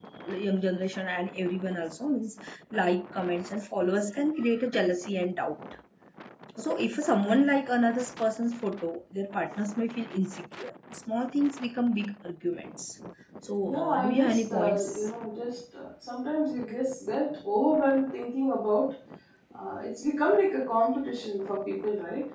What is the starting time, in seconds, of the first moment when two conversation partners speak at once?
13.7 s

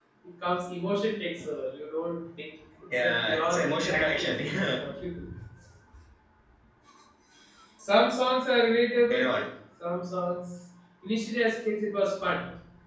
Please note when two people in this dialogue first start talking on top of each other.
2.9 s

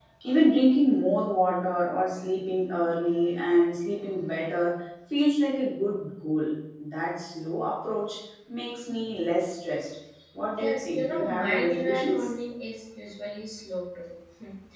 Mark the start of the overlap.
10.6 s

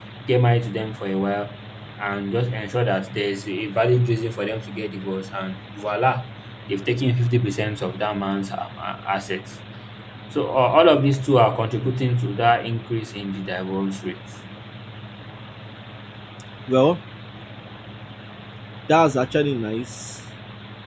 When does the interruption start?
none

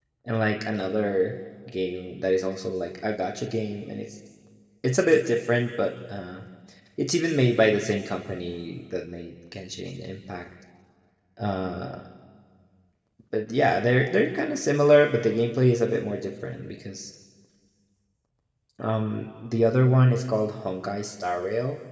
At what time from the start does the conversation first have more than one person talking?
none

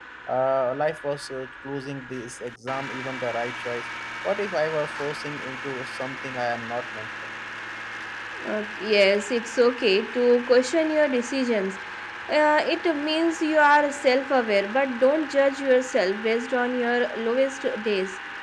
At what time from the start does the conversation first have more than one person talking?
none

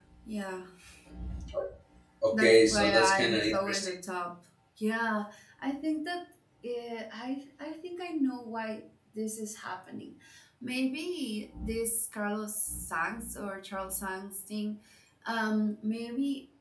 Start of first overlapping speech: 2.3 s

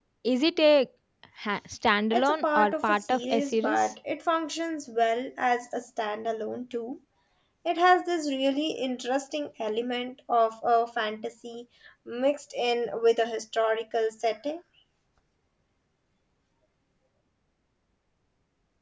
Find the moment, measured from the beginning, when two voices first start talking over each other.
2.1 s

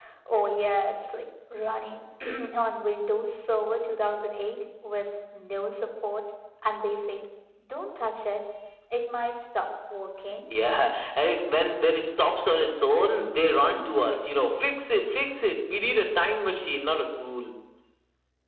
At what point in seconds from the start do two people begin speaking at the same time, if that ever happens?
none

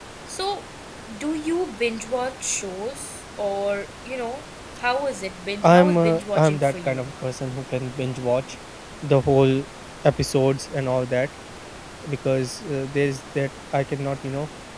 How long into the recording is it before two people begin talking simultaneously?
5.6 s

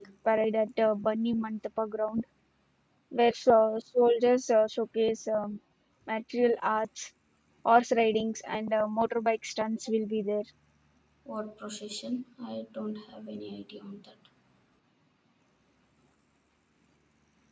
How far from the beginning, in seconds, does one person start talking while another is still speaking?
none

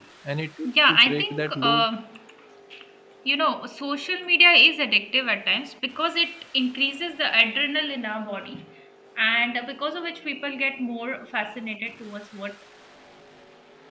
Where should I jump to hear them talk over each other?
0.6 s

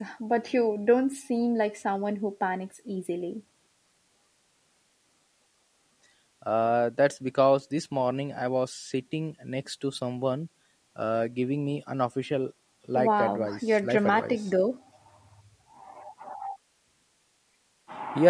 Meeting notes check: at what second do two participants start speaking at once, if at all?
12.9 s

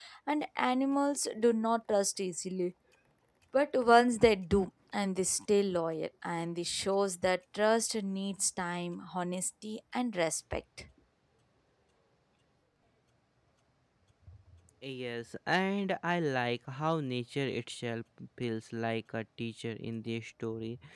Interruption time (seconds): none

